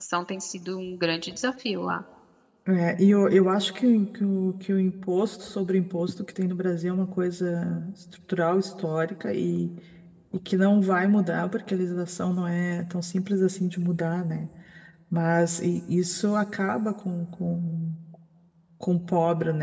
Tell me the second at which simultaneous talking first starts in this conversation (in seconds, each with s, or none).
none